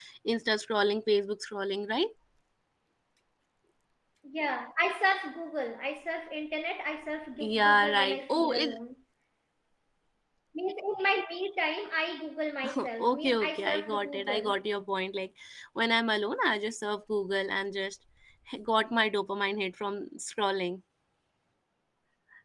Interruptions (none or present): present